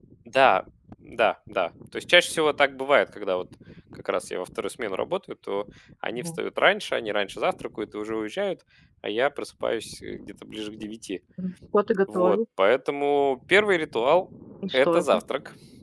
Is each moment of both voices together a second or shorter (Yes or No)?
Yes